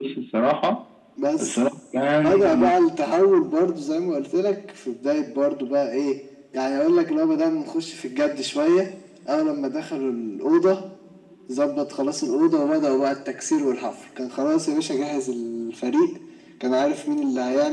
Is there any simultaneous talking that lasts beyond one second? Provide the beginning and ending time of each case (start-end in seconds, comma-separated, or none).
none